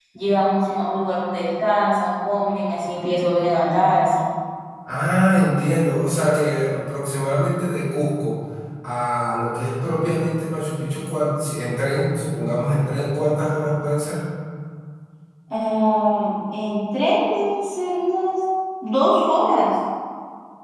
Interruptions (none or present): none